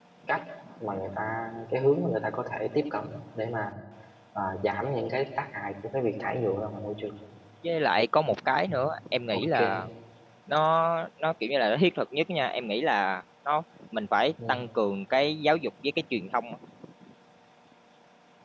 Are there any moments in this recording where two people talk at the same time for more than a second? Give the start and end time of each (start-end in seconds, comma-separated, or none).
none